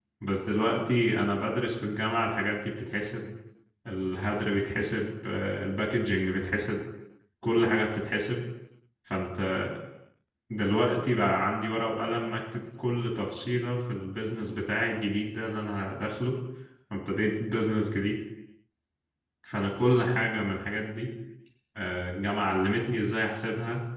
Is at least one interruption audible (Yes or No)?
No